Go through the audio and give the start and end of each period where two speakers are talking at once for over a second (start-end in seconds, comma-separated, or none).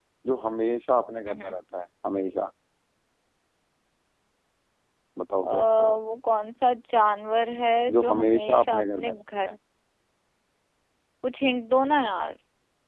7.9-9.5